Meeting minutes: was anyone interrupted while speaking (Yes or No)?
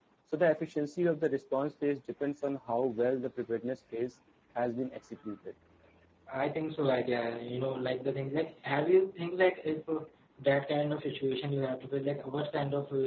No